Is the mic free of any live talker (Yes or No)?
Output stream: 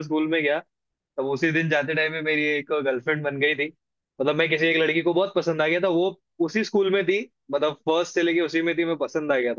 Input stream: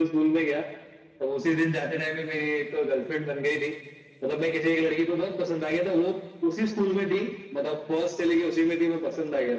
Yes